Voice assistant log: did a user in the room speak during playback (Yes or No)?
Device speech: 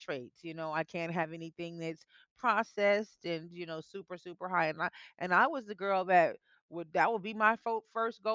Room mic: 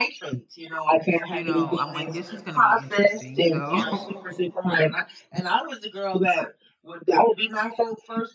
Yes